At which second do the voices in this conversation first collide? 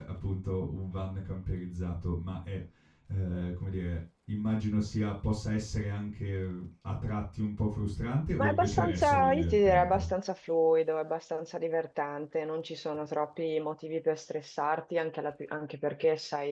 8.4 s

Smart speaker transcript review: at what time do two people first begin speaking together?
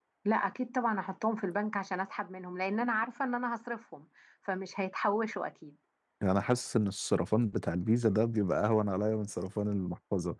none

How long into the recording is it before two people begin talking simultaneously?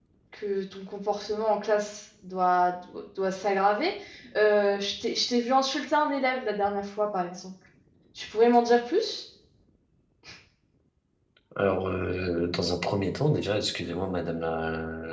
none

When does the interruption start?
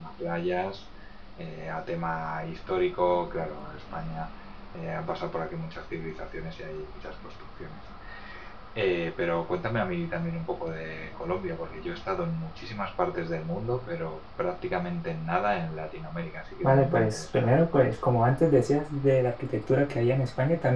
16.6 s

